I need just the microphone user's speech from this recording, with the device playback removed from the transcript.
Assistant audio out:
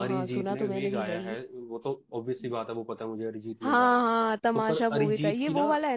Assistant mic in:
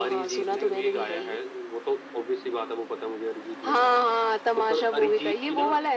none

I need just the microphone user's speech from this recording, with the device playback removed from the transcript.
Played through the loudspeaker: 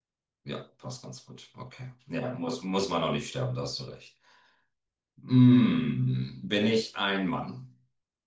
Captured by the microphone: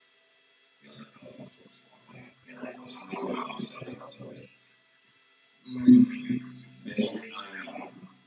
none

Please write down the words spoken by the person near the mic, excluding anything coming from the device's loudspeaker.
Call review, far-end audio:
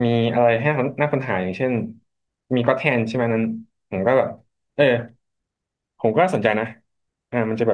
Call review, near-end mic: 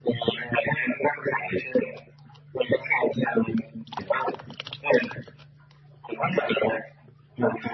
none

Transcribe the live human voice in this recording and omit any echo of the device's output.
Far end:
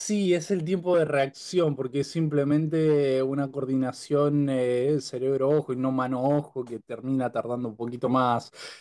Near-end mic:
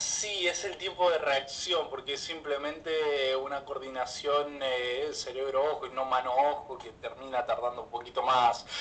none

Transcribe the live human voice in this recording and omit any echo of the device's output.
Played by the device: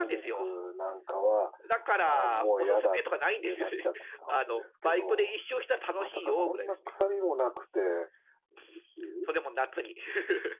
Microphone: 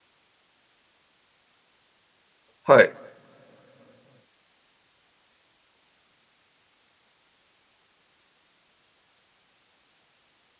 はい。

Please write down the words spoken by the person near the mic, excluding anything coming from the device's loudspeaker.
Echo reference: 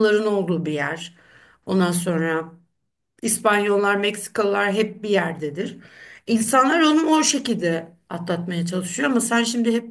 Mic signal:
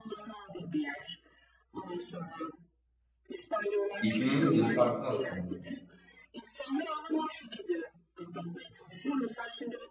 İklimimiz bile farklı aslında.

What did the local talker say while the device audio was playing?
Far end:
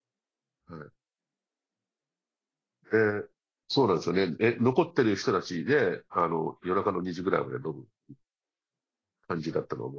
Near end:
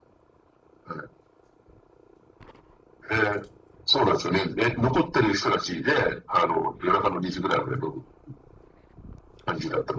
none

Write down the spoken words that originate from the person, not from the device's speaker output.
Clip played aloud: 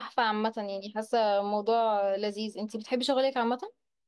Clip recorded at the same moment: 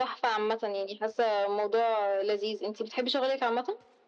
none

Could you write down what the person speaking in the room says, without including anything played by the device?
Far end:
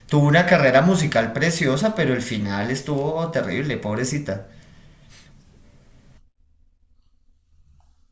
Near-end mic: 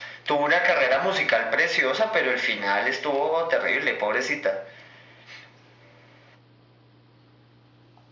none

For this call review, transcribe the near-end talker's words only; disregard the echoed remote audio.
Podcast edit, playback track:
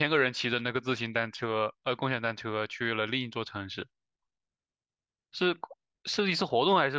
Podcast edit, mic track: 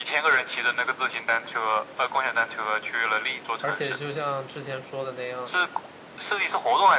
而且就像之前说的那样，

